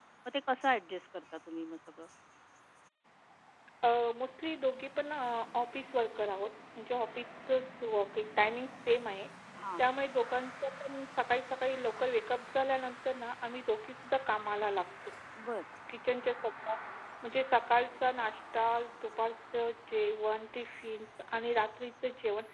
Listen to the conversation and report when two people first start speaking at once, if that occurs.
none

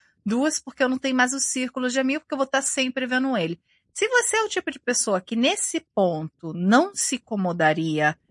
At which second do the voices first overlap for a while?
none

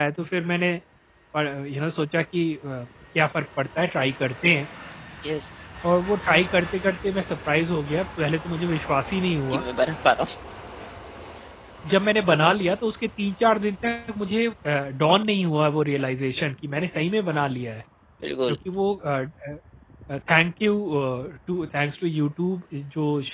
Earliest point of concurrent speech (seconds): none

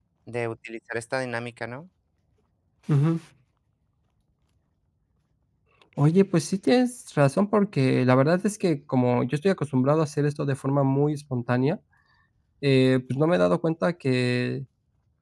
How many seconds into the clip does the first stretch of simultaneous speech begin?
none

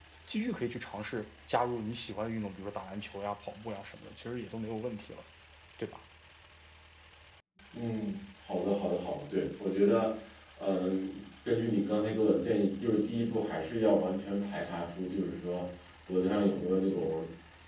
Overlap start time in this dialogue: none

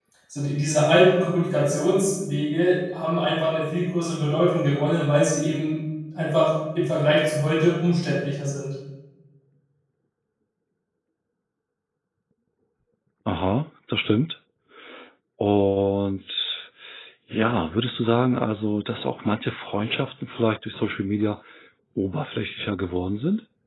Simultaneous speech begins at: none

